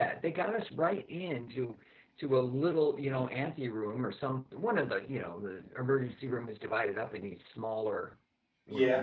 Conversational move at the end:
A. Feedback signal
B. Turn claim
A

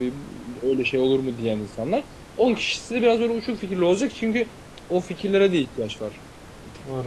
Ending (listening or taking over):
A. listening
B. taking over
B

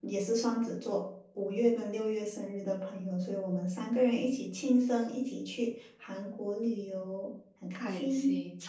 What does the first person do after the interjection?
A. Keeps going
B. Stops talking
B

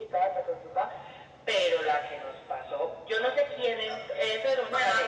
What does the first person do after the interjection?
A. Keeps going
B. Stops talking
B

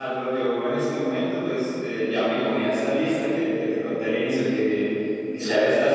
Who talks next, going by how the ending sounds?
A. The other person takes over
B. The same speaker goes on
B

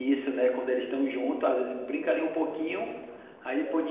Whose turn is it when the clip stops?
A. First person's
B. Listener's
A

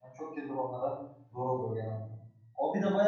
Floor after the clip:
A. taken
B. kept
B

